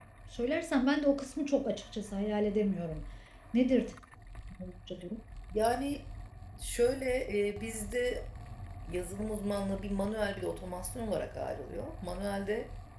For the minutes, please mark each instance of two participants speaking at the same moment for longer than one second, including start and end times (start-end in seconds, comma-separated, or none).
none